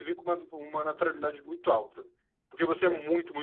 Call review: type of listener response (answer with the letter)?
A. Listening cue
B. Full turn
A